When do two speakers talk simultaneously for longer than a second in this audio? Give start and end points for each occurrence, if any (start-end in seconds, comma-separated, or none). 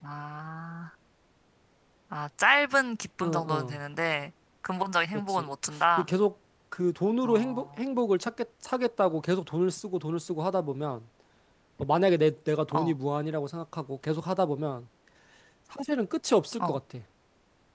none